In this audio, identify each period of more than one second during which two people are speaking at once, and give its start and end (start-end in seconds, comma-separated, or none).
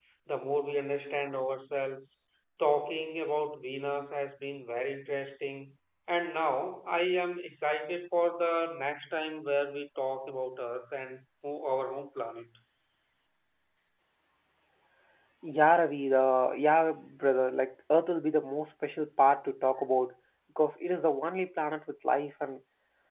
none